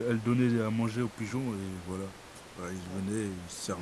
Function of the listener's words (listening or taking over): taking over